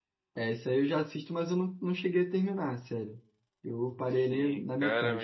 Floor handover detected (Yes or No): Yes